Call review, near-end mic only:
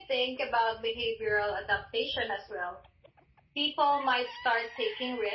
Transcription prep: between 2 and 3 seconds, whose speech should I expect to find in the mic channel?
echo only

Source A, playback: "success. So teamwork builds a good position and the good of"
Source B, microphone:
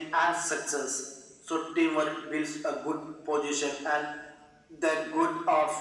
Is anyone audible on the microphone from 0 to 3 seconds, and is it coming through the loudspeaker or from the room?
echo only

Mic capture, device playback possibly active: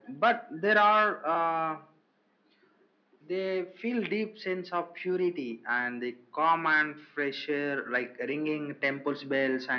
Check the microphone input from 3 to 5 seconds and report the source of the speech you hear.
echo only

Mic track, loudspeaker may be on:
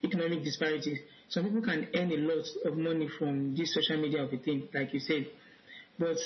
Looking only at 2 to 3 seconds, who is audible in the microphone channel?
echo only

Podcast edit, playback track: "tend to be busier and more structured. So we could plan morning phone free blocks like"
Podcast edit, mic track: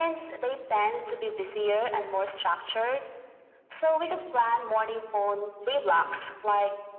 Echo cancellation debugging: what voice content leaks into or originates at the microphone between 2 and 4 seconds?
echo only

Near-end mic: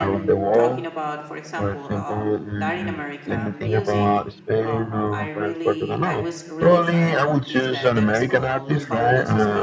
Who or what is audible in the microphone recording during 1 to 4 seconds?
both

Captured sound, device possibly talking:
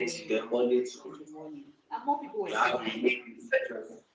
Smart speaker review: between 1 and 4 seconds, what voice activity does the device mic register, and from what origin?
both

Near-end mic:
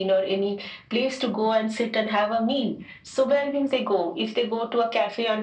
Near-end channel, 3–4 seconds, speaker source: echo only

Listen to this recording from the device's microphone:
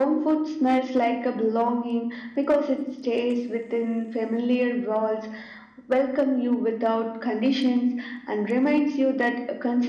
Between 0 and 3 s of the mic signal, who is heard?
echo only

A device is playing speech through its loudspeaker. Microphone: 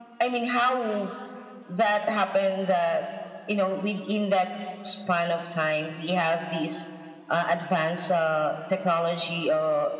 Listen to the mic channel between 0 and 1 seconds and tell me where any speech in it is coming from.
echo only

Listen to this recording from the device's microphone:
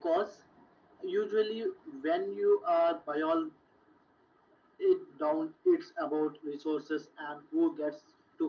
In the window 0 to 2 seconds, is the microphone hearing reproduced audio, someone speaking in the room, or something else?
echo only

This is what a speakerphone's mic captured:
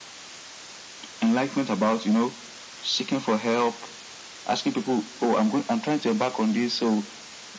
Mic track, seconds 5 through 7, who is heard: echo only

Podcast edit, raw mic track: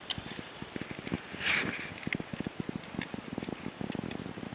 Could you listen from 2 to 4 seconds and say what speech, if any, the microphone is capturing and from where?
neither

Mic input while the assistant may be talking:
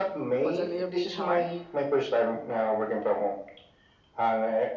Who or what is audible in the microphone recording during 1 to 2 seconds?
both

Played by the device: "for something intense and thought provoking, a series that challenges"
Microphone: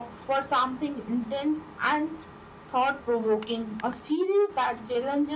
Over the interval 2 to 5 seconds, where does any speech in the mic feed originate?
echo only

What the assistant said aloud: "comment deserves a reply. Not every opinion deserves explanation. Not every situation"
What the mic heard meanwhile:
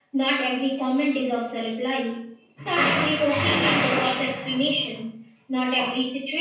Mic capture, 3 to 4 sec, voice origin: echo only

